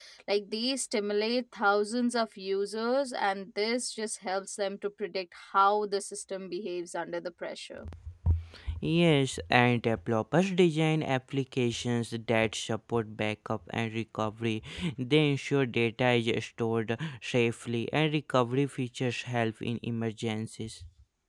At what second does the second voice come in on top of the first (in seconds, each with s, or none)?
none